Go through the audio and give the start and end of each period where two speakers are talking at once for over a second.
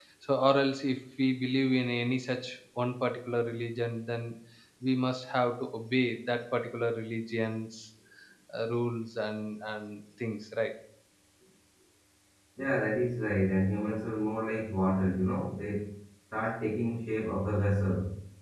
none

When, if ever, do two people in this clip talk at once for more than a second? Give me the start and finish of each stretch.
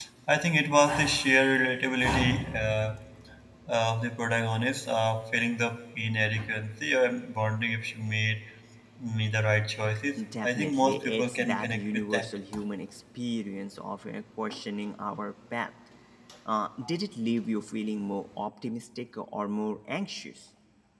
10.4-12.3

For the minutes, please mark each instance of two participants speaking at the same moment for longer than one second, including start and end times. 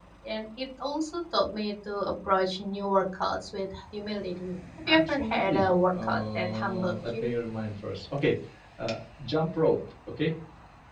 4.9-7.3

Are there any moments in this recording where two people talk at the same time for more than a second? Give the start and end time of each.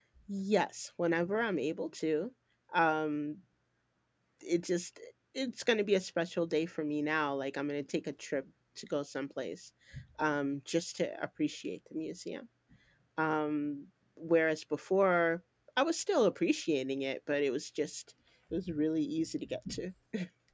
none

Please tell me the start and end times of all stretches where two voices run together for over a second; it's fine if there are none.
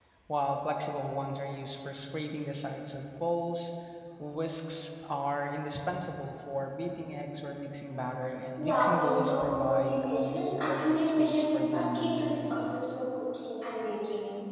8.6-13.0

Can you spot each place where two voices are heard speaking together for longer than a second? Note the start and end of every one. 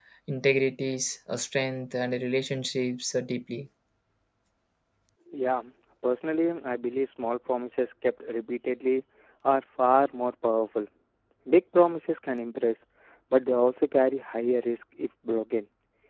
none

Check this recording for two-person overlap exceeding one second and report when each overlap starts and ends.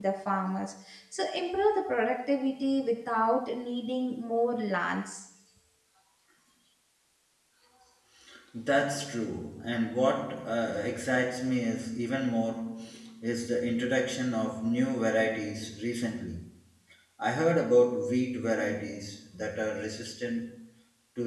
none

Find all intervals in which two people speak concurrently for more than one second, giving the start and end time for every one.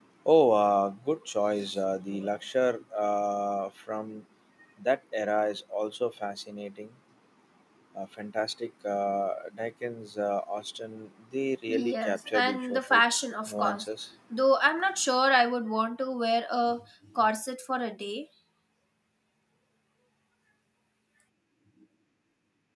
11.7-13.0

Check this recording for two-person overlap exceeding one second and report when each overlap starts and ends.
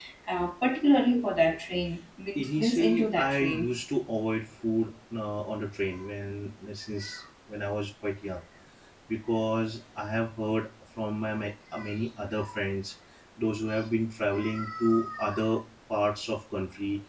2.4-3.7

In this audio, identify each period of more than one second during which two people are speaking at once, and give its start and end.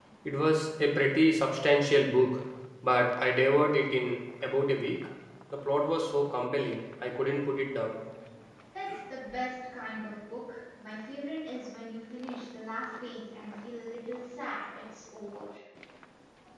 none

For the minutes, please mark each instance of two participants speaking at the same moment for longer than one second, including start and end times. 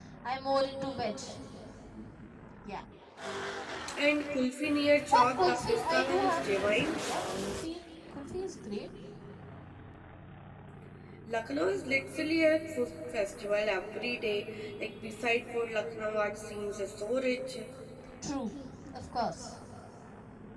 5.1-7.0

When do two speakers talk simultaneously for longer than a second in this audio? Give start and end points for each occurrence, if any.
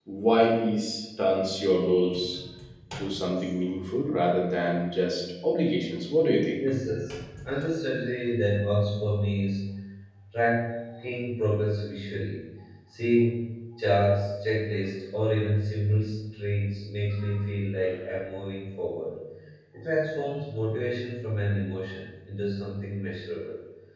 none

